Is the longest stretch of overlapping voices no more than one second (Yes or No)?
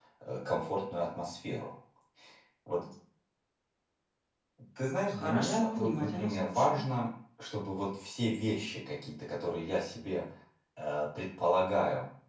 No